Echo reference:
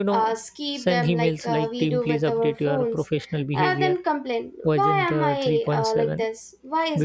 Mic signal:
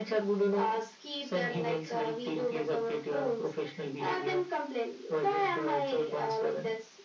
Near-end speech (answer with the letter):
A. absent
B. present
A